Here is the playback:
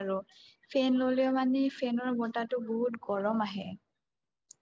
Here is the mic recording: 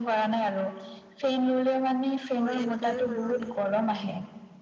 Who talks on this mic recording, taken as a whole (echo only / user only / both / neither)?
both